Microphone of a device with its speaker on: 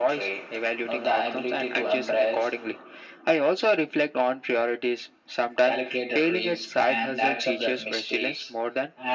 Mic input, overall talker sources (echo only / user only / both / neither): echo only